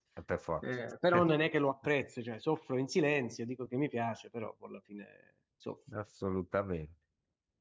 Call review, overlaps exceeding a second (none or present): none